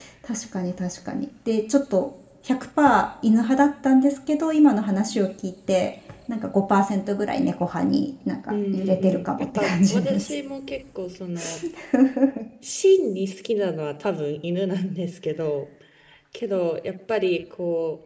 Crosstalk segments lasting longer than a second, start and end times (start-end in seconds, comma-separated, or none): 8.5-10.3